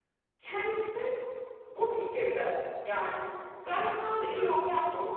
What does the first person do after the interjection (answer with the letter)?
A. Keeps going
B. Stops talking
A